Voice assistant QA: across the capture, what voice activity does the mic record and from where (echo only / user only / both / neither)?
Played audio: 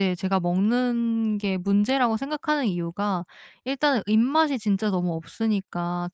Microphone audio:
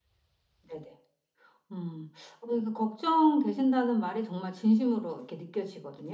user only